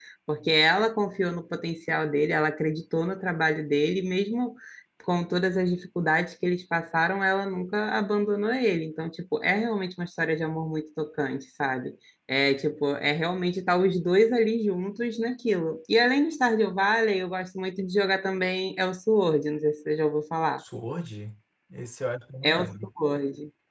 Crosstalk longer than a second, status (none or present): none